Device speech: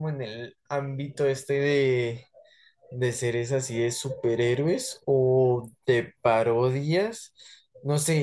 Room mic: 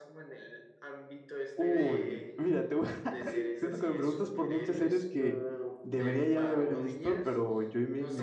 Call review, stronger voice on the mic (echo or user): user